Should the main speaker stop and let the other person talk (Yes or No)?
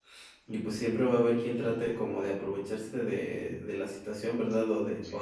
No